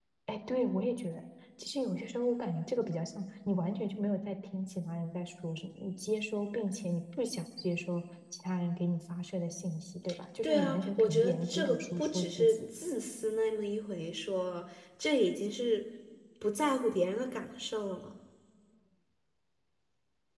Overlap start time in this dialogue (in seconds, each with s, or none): 10.4 s